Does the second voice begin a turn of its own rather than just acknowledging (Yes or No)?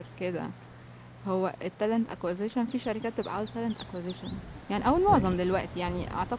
No